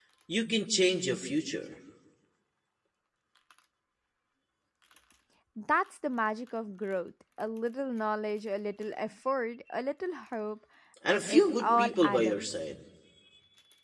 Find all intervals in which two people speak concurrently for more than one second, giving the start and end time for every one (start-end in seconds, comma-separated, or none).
11.1-12.6